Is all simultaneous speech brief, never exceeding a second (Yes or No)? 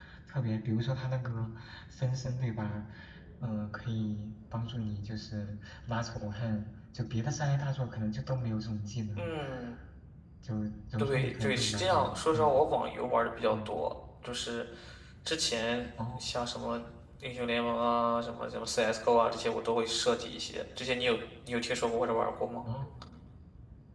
No